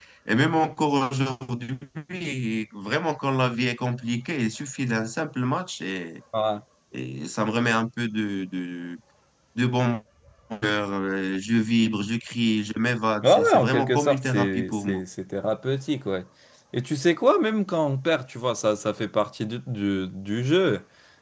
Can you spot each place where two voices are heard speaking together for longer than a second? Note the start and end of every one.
13.2-15.0

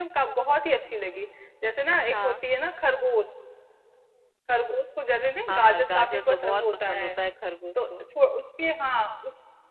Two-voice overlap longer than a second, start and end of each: 5.5-7.1

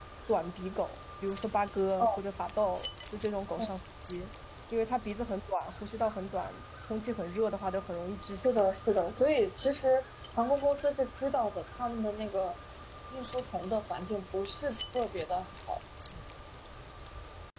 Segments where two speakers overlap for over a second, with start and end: none

